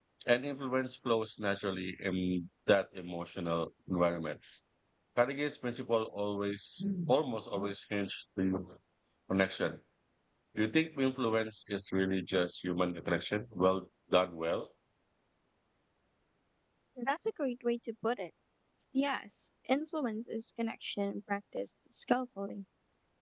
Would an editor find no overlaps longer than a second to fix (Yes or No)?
Yes